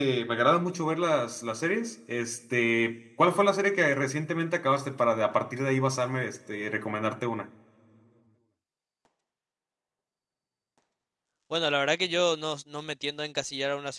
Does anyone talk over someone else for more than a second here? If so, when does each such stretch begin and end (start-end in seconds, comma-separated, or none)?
none